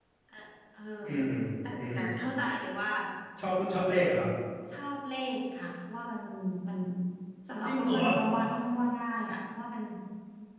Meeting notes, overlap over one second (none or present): none